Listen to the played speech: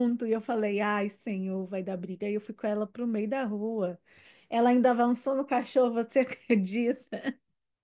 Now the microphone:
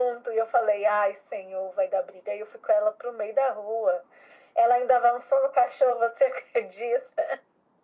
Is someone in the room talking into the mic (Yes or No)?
No